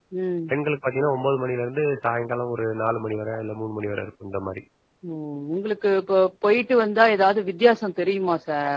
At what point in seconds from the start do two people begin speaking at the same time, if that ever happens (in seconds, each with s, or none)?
none